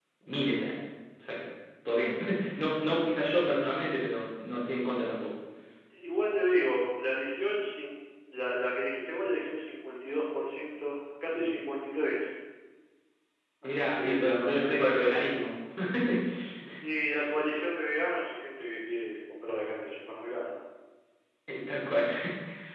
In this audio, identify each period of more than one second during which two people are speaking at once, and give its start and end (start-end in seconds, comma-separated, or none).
13.6-15.4